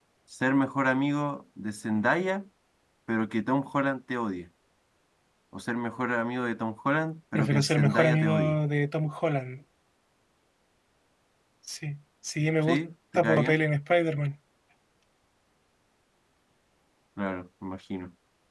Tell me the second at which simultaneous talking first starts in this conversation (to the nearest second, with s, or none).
7 s